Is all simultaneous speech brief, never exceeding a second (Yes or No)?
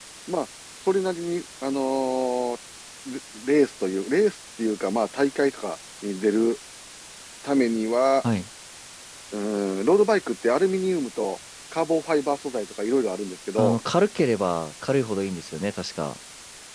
Yes